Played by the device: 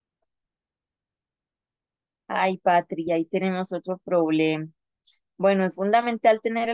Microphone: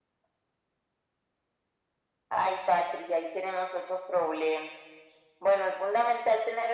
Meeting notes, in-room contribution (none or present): none